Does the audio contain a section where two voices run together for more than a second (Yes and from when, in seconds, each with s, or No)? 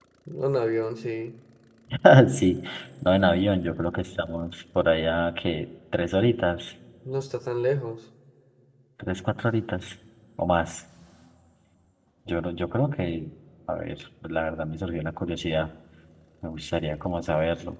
No